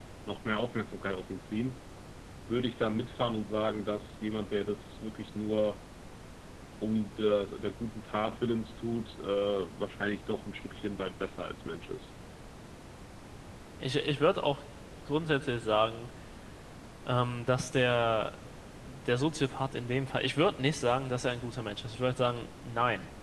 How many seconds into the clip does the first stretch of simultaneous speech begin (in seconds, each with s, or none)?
none